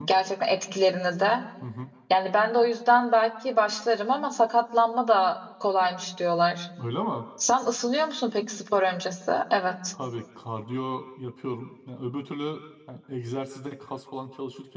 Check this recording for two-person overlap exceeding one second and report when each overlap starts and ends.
none

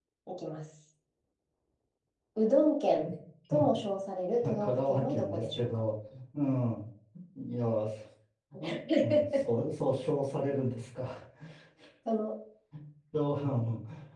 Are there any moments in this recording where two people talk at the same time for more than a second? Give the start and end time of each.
4.4-5.6

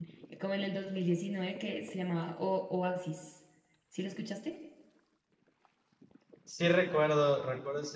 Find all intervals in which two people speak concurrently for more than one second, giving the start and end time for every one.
none

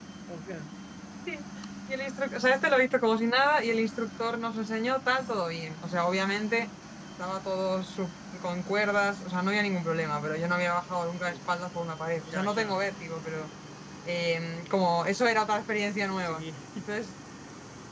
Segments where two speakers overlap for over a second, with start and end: none

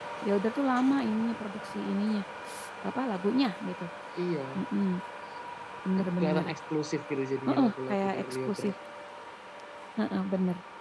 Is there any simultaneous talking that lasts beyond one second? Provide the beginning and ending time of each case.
7.5-8.7

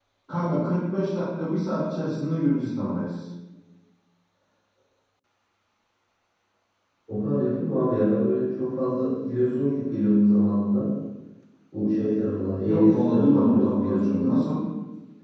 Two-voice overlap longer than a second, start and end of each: 12.7-14.3

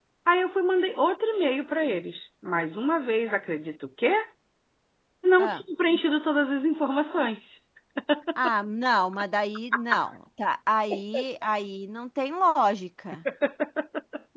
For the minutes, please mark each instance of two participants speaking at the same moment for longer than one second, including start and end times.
none

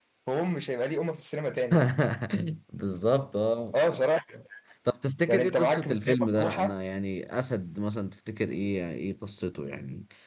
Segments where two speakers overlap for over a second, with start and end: 5.3-6.7

